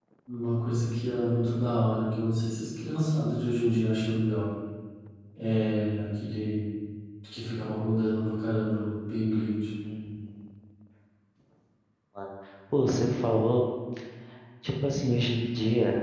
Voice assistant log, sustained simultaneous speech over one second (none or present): none